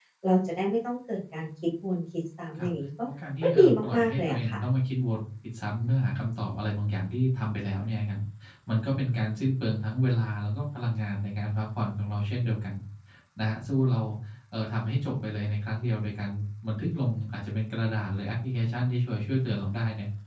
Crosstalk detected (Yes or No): Yes